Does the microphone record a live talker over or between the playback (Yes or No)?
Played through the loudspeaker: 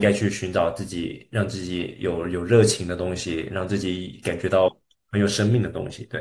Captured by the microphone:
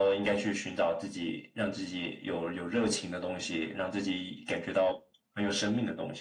No